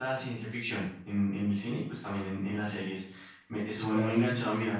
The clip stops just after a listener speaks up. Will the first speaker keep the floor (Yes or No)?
Yes